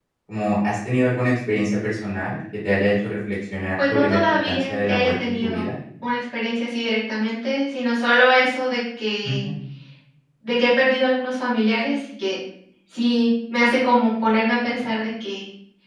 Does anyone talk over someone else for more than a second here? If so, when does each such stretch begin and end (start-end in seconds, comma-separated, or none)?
3.9-5.7